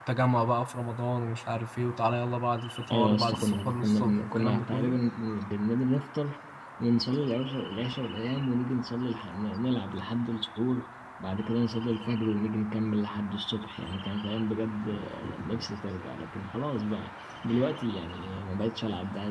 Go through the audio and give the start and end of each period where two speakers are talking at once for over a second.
2.9-5.0

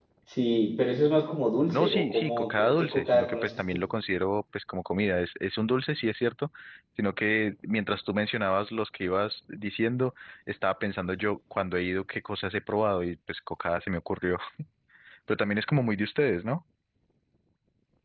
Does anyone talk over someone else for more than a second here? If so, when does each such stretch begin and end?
1.7-3.6

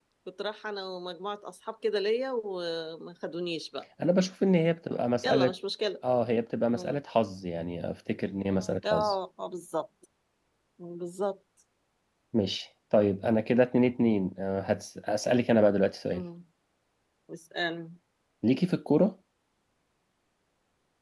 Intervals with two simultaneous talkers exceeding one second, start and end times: none

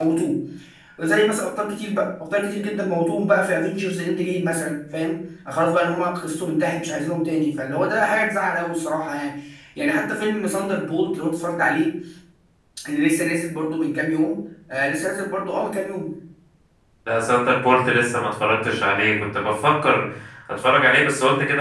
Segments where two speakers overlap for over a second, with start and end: none

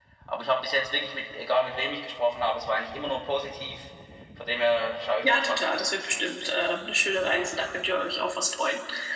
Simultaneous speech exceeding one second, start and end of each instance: 5.2-6.7

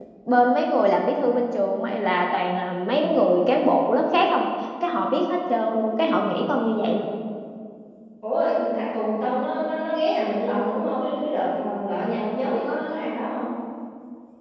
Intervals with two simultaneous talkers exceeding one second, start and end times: none

